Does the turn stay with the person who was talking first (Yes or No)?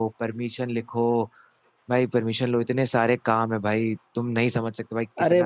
No